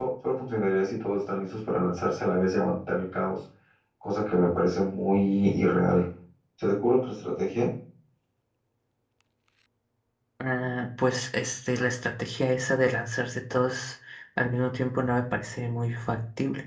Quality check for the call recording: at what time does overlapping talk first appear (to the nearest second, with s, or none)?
none